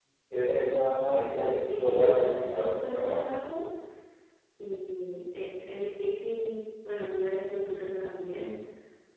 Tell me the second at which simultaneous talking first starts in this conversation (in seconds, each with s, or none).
1.1 s